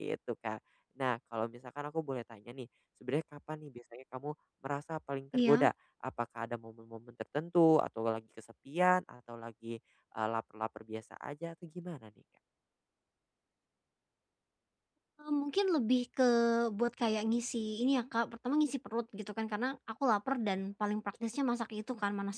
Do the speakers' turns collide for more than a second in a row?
No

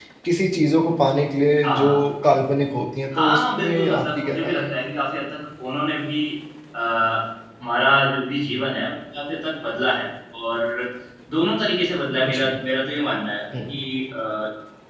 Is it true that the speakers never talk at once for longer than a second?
No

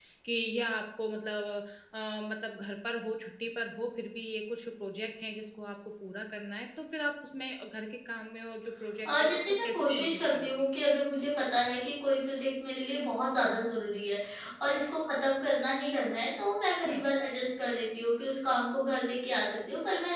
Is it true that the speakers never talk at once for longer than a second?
No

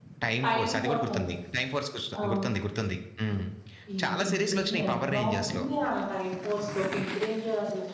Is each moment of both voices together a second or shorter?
No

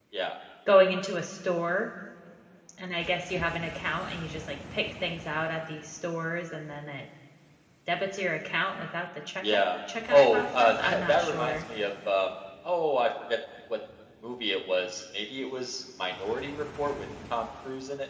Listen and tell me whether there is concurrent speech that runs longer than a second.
Yes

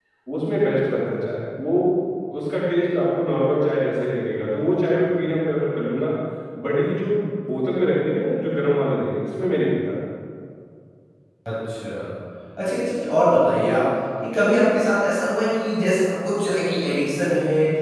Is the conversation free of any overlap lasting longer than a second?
Yes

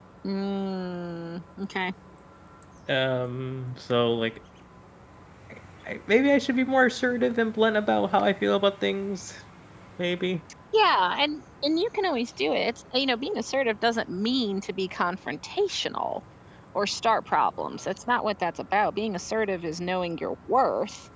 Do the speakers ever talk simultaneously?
No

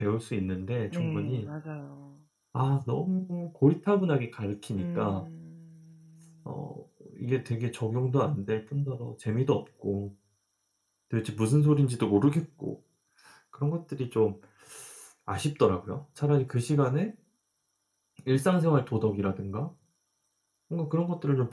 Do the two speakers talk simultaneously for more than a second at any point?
No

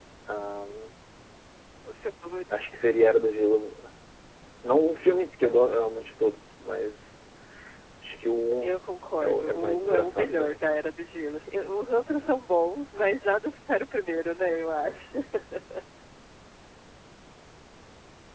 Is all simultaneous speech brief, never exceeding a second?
No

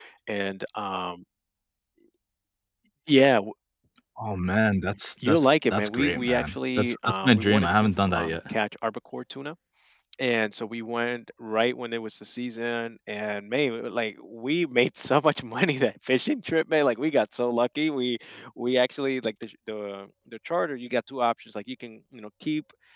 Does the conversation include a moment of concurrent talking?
Yes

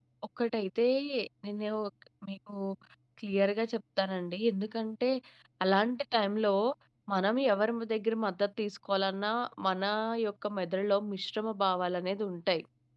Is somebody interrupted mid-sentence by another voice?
No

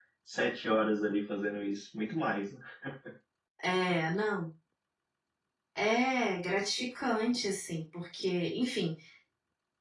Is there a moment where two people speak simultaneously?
No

